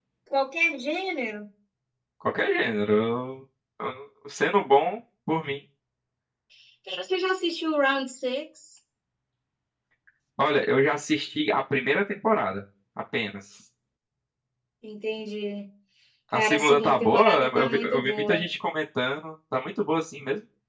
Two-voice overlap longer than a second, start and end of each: 16.3-18.4

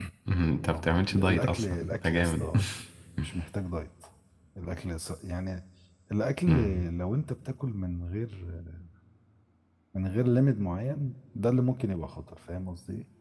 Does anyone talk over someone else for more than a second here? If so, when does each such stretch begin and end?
0.6-2.5

